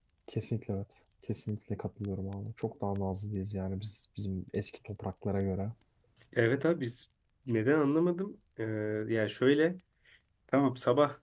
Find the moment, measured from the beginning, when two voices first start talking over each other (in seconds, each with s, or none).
none